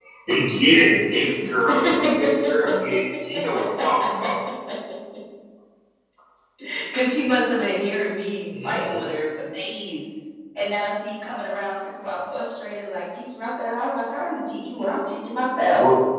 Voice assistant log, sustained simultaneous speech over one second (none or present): none